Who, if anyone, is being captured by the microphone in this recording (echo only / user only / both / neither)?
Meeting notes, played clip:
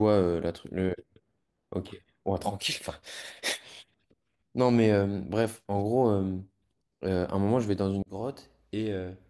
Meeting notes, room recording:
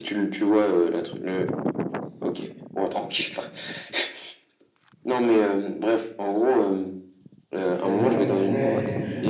both